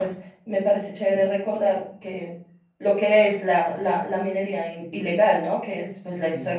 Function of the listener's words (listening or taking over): listening